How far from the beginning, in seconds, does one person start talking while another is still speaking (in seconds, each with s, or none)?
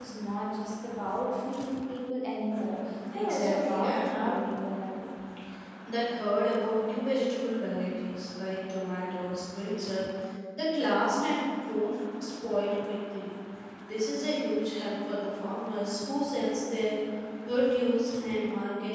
3.1 s